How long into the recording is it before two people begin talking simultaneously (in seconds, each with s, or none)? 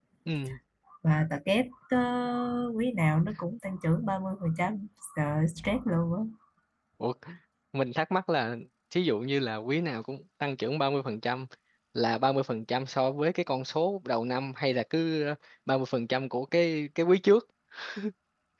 none